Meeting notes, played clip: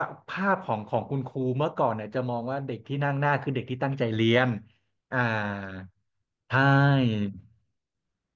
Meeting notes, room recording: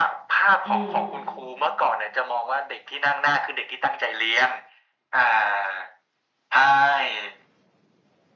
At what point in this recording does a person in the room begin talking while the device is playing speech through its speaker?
0.6 s

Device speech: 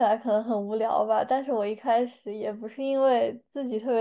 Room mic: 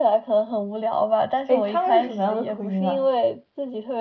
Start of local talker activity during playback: 1.5 s

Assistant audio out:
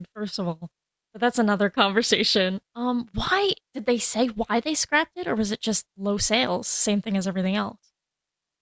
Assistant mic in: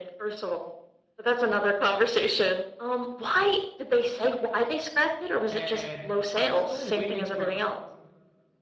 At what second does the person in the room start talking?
5.5 s

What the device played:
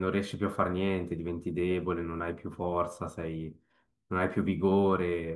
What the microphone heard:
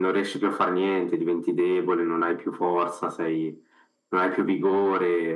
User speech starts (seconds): none

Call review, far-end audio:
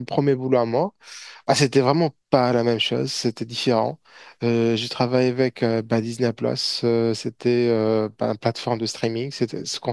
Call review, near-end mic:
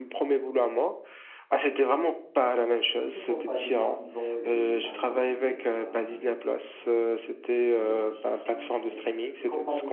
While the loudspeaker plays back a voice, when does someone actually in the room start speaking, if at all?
3.1 s

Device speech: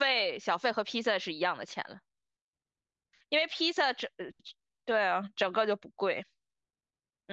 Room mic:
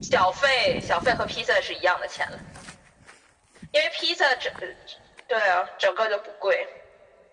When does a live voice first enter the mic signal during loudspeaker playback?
none

